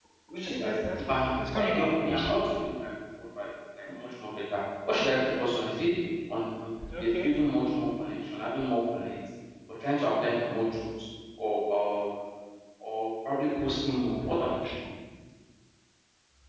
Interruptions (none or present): present